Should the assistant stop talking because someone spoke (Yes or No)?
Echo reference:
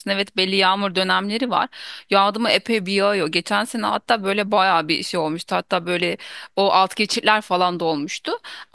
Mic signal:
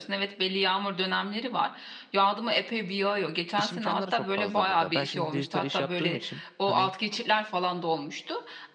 Yes